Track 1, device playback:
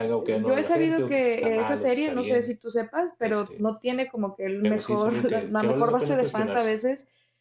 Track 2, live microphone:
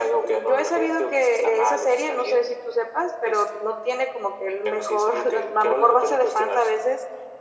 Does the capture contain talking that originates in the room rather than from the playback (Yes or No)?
No